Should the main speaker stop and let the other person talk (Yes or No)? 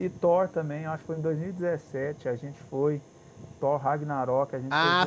Yes